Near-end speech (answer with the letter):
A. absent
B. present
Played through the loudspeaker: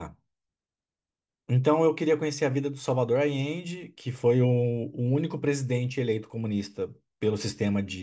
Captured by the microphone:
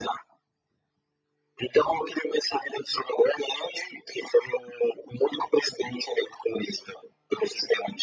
A